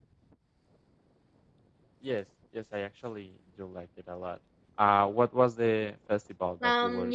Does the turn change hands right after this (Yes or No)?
Yes